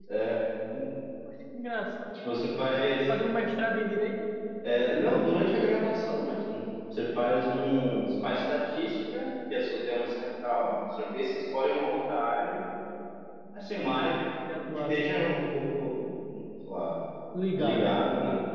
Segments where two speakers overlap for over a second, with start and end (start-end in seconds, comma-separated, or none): none